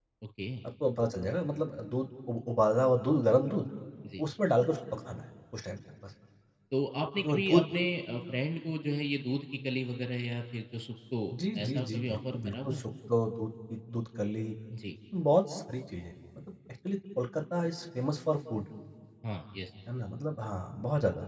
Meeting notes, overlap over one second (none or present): present